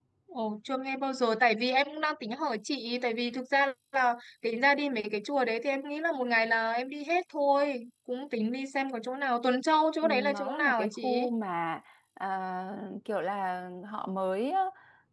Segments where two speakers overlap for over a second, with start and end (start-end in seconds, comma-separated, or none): 10.0-11.2